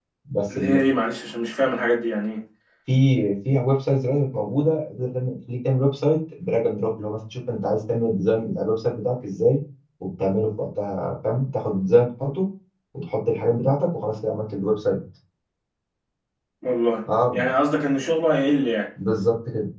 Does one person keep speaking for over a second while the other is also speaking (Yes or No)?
No